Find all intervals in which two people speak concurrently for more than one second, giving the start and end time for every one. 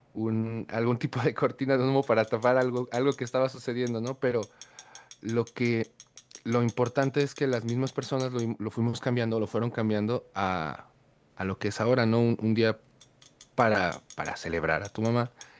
none

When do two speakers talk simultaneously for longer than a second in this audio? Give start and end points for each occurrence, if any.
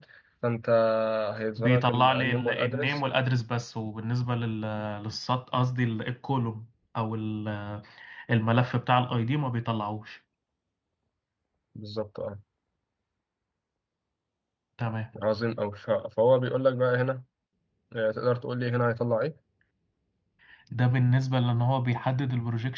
1.6-3.0

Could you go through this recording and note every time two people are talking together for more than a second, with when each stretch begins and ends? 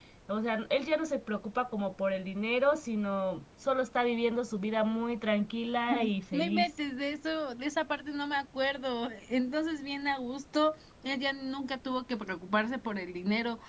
none

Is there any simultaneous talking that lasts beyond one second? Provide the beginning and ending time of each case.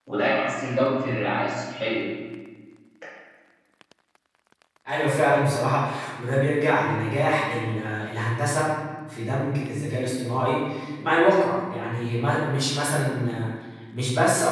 none

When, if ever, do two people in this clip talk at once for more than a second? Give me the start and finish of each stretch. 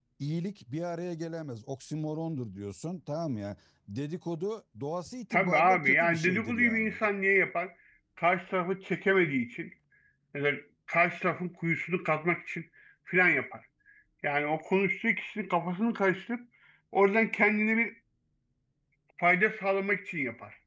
5.3-7.1

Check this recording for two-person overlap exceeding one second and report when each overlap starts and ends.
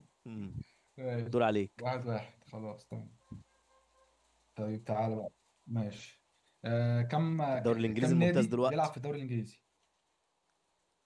7.5-8.8

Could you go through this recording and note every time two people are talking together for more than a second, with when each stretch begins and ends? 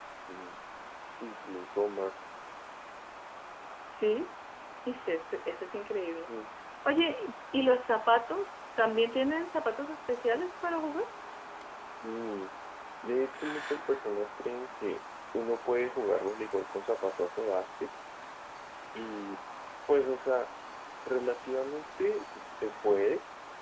none

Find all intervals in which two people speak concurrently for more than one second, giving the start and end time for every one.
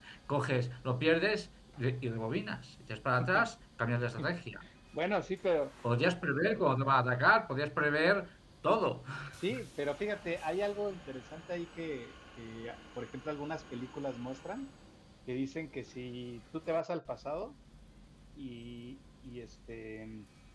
none

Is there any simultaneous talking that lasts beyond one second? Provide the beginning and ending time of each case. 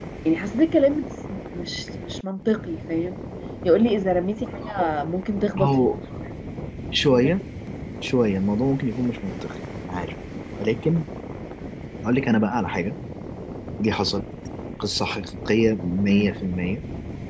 none

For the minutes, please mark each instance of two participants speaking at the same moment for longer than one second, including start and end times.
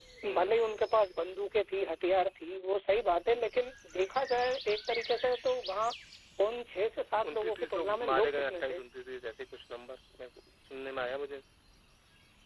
7.3-8.8

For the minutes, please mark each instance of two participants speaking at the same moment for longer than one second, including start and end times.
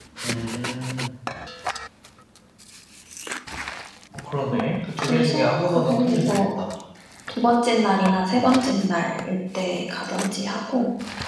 5.1-6.5

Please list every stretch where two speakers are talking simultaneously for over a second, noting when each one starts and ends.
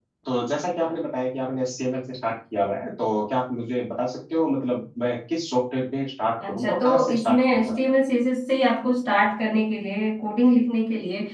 6.5-7.8

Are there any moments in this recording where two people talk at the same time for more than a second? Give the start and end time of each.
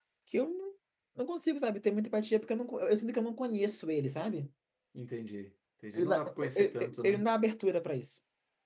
5.9-7.2

